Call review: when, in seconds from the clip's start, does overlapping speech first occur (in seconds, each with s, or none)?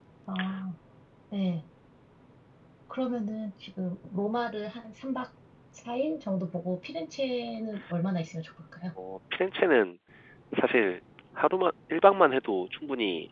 none